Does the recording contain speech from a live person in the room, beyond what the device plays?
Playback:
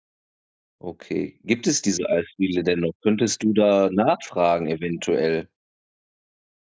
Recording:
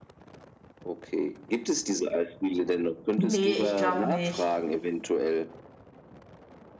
Yes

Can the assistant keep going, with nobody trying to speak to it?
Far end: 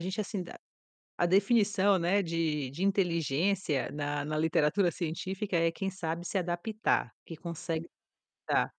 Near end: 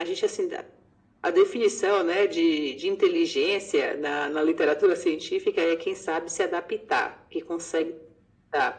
Yes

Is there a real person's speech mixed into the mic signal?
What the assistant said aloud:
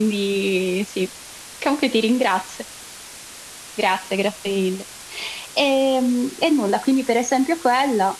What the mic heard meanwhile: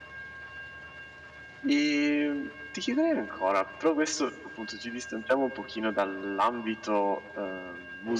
Yes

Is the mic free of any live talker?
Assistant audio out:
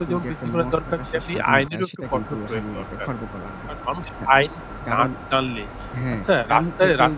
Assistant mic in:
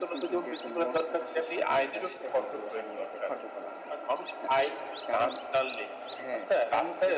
Yes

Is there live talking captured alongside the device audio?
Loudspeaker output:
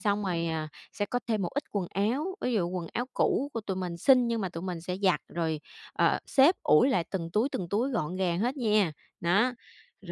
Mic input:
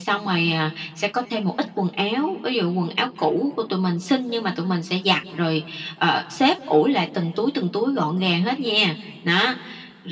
No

